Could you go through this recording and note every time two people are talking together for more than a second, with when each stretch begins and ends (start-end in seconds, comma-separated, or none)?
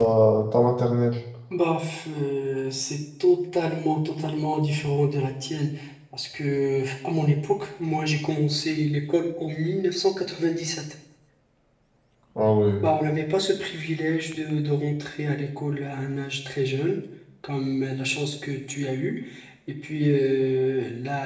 none